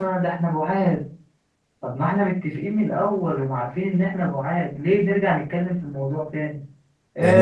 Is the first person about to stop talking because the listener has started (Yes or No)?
No